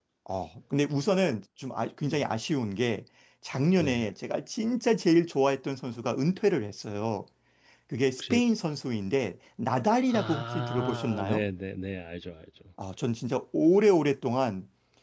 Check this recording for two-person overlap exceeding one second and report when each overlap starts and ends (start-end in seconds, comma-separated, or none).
10.1-11.4